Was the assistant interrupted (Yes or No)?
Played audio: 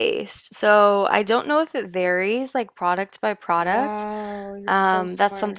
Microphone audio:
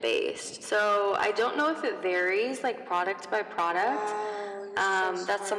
No